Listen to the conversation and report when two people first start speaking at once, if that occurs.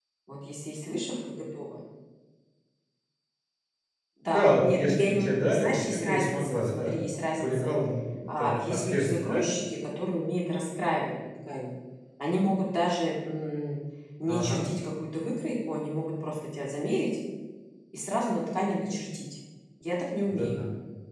4.3 s

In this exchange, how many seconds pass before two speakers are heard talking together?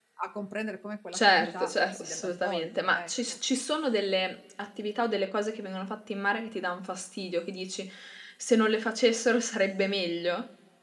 1.1 s

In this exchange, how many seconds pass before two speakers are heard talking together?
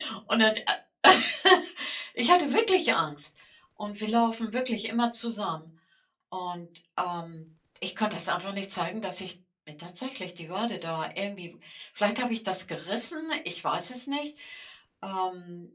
none

